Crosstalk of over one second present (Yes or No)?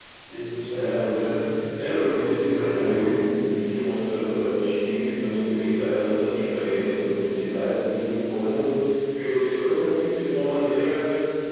Yes